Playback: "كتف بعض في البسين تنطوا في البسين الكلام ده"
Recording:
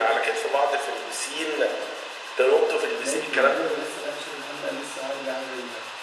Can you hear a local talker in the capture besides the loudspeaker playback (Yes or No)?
Yes